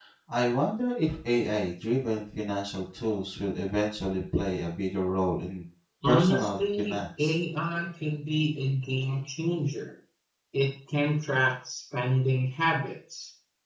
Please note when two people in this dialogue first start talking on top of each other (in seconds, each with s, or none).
6.0 s